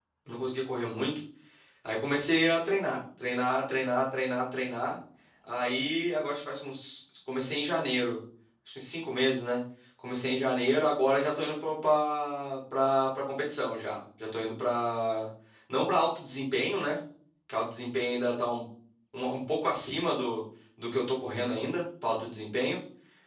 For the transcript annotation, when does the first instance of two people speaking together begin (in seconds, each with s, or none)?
none